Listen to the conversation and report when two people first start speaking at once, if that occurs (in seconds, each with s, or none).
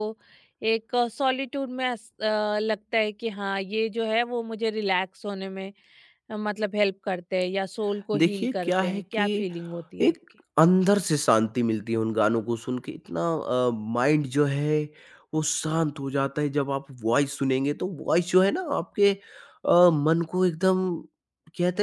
8.1 s